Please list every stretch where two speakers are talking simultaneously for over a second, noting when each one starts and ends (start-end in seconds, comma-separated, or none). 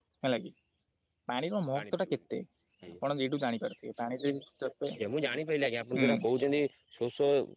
none